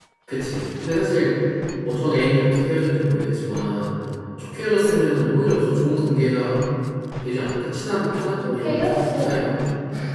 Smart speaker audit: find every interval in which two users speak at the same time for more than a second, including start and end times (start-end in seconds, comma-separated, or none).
7.9-9.5